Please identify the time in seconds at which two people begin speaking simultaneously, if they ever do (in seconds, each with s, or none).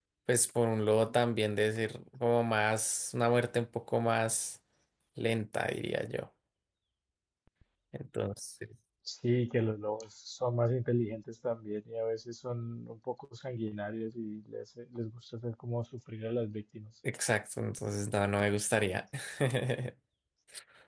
none